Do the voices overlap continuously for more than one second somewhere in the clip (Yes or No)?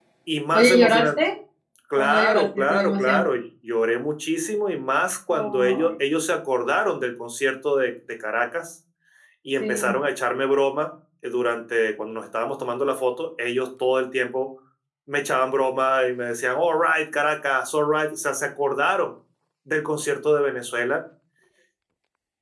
Yes